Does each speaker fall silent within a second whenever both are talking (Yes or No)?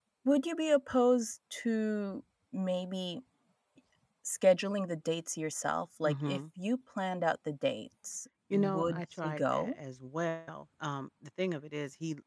No